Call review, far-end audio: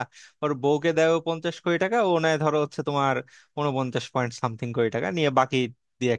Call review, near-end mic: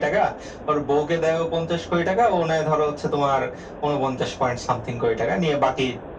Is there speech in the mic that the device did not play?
No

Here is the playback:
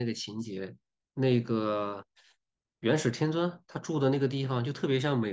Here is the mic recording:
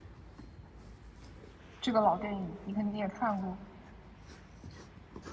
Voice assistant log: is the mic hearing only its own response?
No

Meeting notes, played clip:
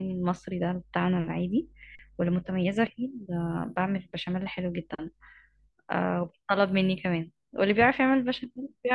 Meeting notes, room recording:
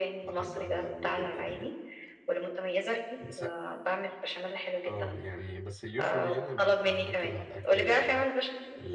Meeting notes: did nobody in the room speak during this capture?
No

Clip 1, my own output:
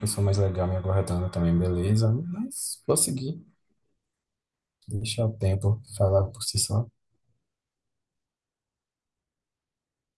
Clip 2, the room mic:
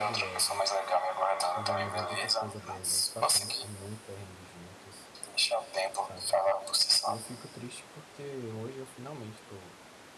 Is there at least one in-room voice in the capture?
Yes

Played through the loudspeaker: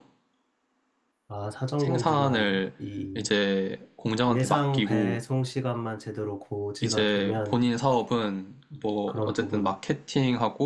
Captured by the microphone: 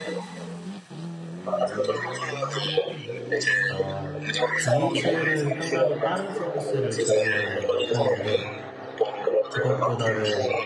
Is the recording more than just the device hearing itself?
Yes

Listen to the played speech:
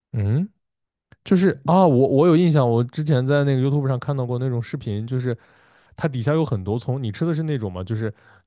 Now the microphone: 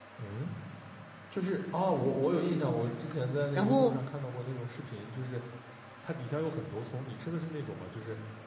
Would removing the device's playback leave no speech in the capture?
No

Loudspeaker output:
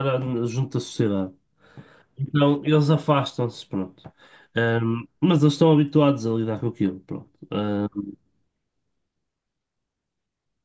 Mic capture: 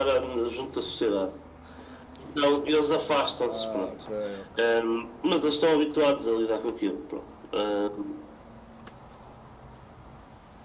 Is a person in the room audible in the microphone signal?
Yes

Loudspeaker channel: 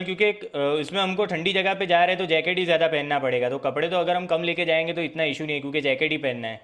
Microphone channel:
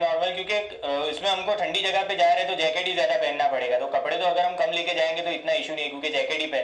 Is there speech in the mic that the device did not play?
No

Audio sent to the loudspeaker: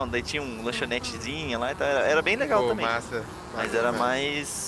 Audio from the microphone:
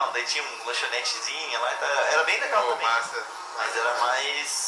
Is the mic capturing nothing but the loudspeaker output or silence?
Yes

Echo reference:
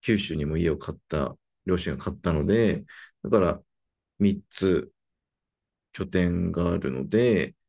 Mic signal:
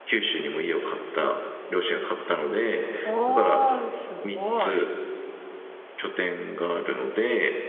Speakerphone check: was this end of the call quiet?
No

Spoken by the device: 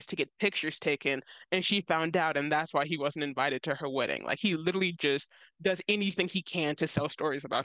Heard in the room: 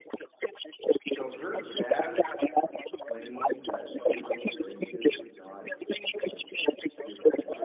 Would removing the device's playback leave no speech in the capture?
No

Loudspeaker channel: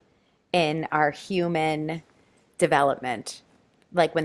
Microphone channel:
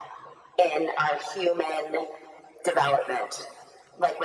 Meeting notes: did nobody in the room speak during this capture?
Yes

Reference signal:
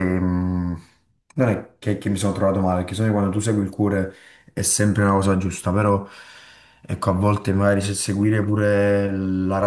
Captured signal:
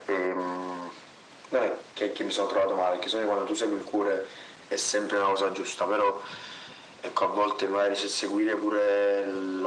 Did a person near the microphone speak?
No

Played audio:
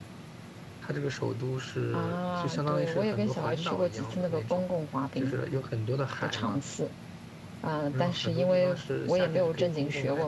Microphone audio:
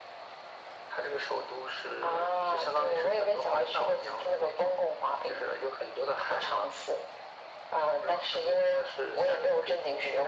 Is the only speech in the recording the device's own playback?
Yes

